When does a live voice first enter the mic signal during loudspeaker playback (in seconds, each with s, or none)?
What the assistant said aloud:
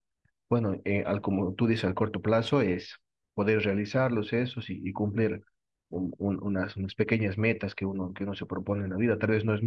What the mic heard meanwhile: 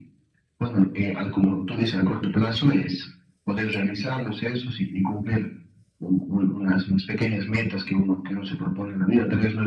none